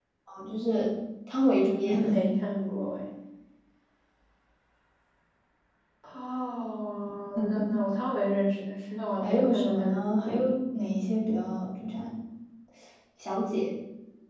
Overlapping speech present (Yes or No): Yes